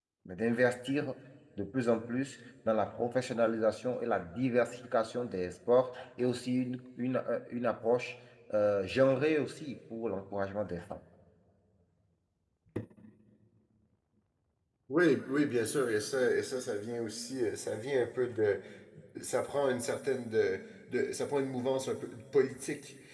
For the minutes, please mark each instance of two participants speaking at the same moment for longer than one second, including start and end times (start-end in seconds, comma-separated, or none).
none